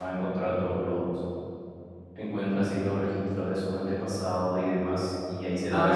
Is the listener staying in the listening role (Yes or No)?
No